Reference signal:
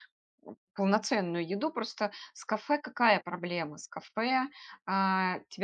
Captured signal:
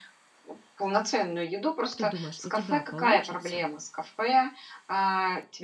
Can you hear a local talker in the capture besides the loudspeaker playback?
Yes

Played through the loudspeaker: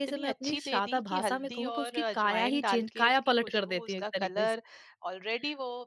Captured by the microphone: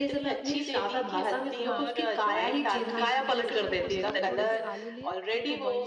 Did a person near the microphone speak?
Yes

